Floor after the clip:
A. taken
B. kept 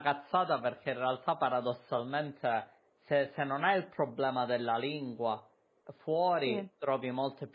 B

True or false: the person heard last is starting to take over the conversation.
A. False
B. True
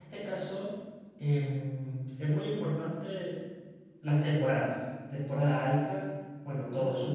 A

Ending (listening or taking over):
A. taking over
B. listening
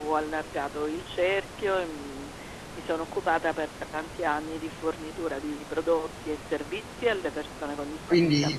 A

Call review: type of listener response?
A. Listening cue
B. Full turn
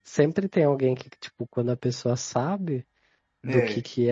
A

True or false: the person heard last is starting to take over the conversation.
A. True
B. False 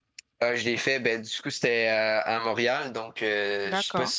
B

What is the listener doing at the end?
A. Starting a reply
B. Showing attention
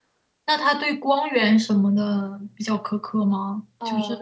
A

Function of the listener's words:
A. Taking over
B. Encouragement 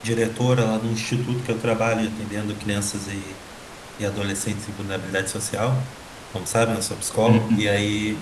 B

